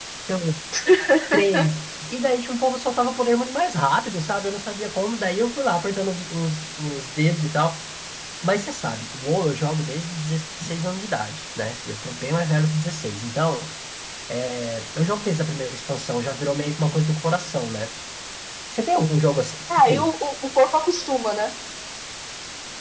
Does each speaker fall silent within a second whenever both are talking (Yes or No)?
Yes